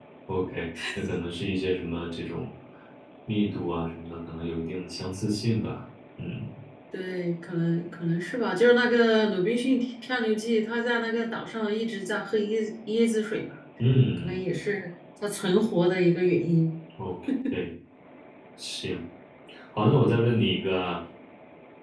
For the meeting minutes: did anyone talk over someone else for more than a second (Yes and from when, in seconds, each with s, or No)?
No